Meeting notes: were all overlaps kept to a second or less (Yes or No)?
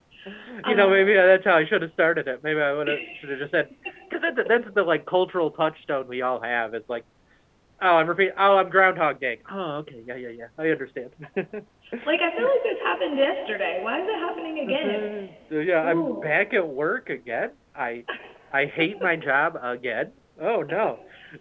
Yes